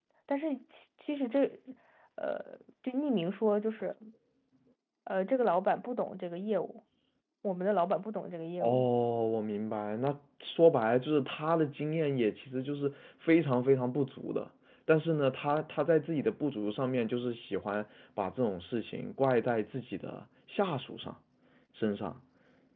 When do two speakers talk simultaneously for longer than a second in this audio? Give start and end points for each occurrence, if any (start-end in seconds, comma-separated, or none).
none